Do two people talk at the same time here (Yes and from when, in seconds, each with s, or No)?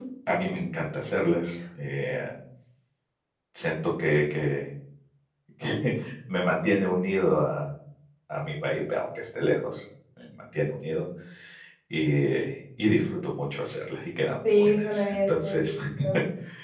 Yes, from 14.4 s